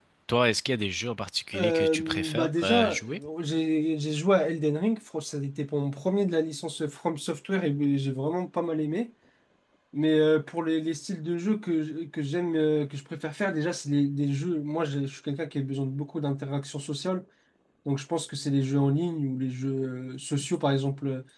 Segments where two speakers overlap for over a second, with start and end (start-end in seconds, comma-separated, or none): 1.5-3.0